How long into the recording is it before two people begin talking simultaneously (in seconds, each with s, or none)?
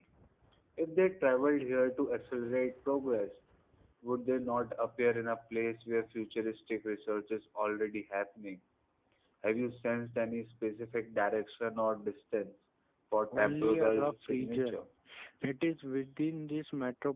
13.3 s